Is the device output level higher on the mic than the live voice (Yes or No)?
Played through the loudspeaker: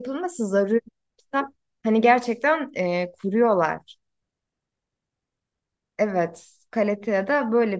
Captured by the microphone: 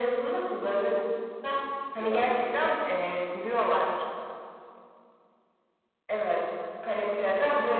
Yes